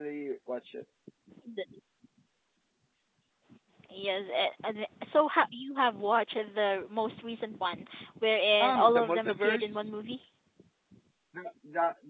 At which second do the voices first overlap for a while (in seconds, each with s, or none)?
8.6 s